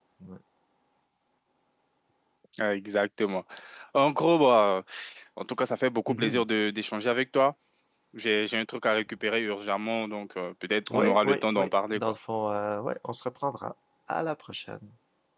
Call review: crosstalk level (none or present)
present